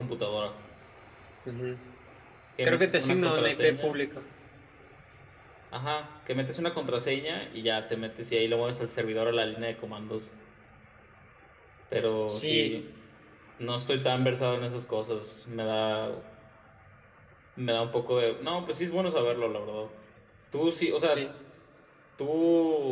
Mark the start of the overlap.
3 s

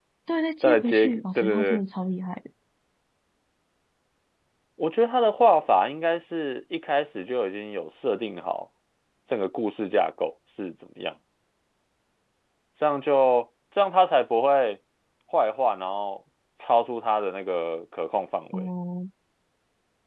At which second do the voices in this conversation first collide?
1 s

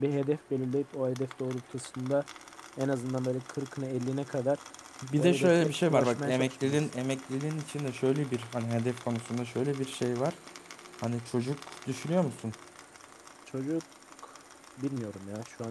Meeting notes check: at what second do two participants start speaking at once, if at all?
5 s

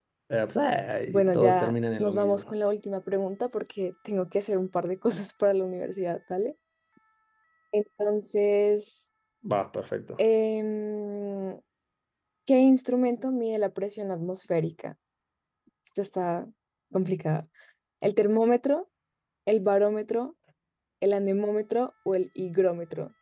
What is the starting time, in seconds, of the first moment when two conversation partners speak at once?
1 s

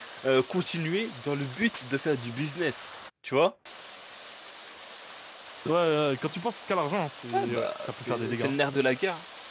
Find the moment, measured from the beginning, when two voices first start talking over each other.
7 s

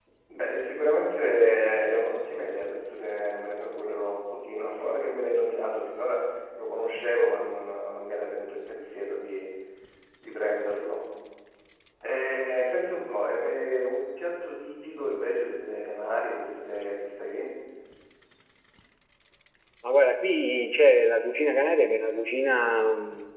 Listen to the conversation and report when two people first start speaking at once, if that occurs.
none

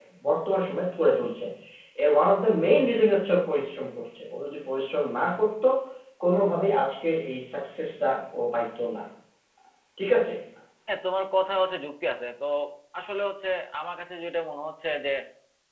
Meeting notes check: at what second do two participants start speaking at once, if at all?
none

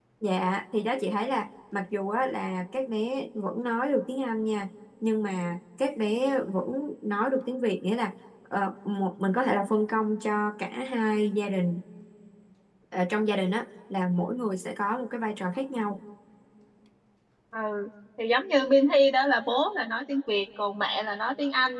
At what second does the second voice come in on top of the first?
none

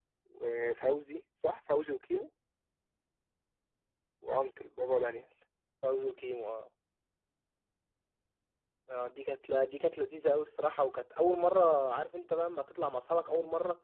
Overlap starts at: none

